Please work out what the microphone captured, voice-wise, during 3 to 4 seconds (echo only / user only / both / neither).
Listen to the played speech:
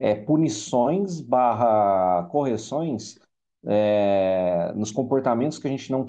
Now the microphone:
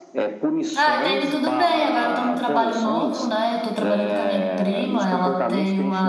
both